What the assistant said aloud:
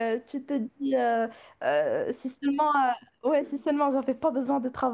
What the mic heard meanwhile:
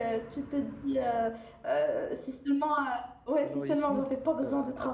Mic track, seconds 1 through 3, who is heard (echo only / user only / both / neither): echo only